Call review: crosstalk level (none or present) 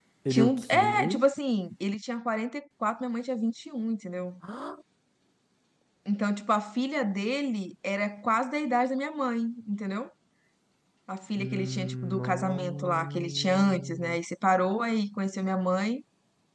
present